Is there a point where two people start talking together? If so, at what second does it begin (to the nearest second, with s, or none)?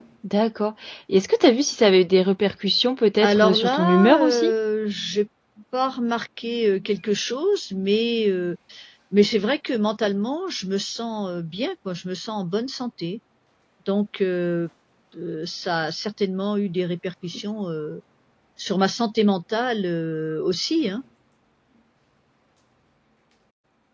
3 s